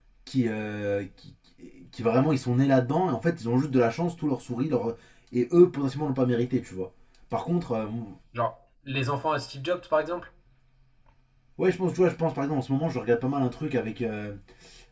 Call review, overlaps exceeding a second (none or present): none